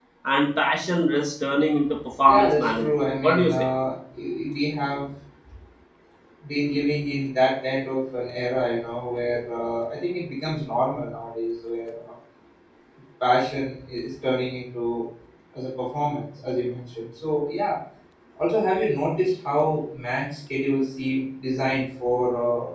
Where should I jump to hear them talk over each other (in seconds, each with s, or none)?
2.3 s